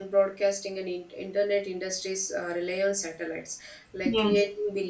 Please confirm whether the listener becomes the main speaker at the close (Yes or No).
No